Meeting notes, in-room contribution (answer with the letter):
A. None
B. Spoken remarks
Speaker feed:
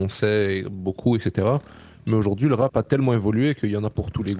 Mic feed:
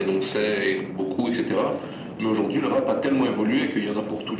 A